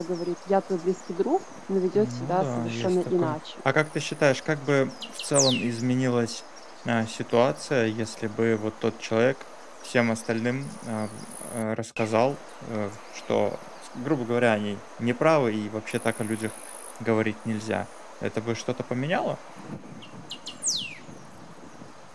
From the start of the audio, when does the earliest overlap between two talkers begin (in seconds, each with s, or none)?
1.9 s